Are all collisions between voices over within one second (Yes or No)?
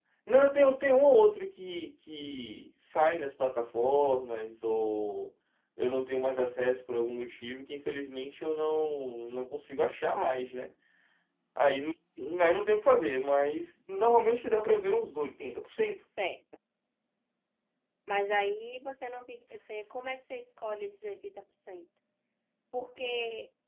Yes